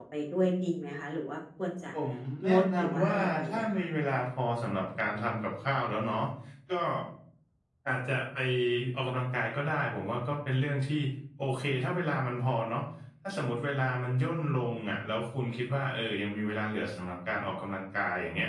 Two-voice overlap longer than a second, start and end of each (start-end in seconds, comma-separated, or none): 2.5-3.9